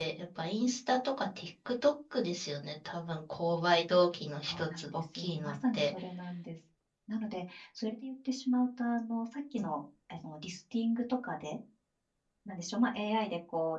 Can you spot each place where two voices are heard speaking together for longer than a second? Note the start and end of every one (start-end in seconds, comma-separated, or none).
4.4-5.9